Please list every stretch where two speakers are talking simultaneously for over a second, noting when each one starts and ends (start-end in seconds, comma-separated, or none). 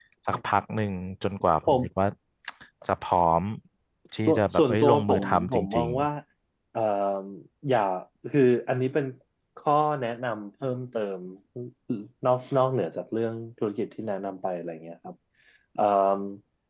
4.2-6.1